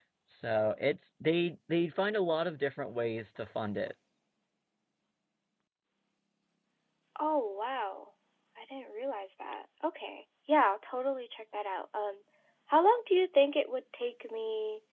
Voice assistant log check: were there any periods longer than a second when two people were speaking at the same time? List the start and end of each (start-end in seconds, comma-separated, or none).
none